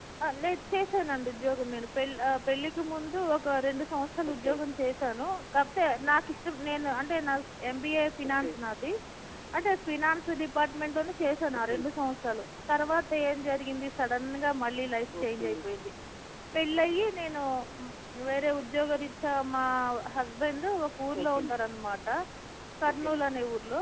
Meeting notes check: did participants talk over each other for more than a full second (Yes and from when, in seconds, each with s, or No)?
No